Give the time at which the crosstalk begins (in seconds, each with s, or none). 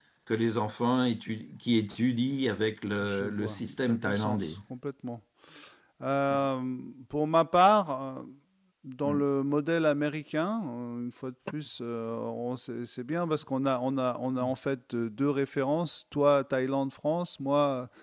3.0 s